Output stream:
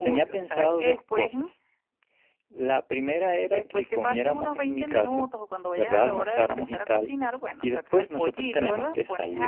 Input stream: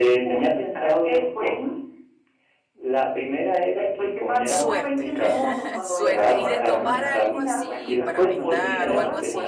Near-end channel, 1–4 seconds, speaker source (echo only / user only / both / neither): echo only